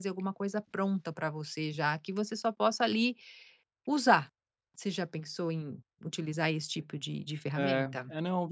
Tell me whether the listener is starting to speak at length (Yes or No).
Yes